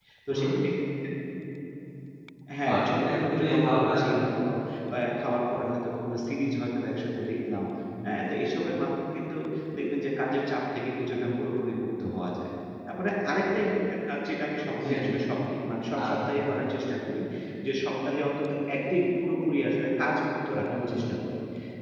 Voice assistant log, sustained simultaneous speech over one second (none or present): present